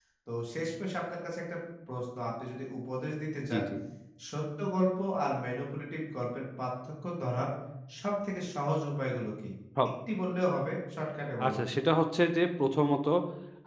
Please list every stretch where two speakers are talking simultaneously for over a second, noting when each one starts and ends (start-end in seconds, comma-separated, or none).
none